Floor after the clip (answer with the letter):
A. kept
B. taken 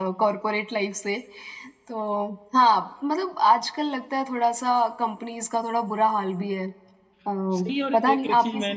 B